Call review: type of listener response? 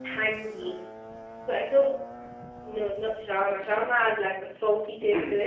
listening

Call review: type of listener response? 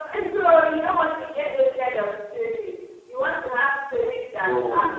listening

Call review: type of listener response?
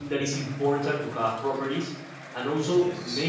listening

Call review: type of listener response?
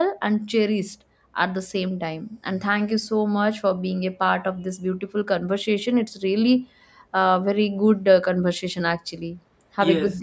taking over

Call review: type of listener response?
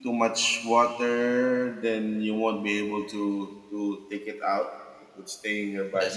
listening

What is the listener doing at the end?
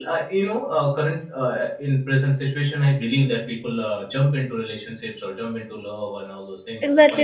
taking over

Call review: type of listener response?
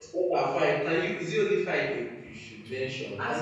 taking over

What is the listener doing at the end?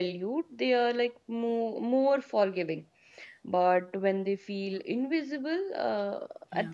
listening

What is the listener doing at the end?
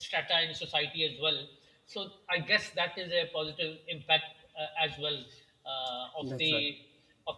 listening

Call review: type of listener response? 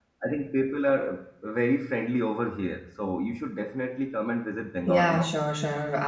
taking over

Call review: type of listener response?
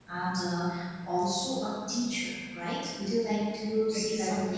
listening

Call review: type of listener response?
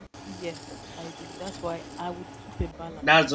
taking over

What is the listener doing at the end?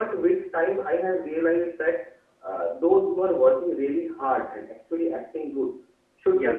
listening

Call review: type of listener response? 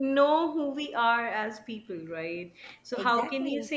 listening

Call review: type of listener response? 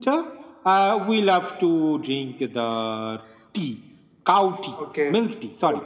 taking over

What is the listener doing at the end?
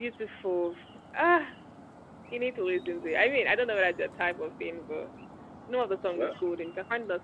listening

